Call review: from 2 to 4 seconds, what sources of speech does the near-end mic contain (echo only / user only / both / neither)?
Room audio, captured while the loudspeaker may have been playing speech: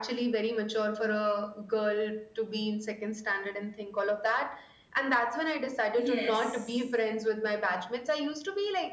echo only